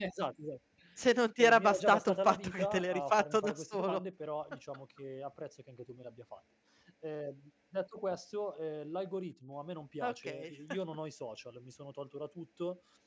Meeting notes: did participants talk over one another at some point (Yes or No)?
Yes